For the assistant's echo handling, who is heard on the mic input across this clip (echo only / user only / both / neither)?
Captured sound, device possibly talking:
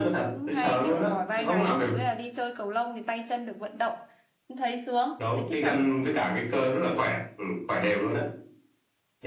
both